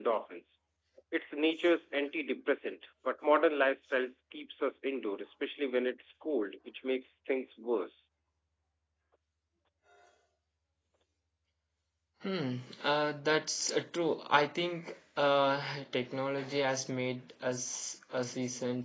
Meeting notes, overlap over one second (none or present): none